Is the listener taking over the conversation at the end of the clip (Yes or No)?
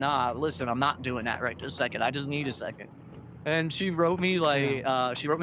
No